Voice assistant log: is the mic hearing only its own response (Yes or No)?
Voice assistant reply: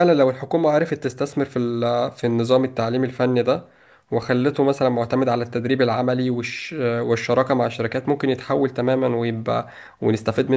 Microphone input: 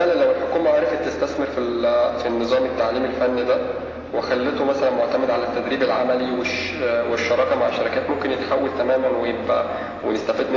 Yes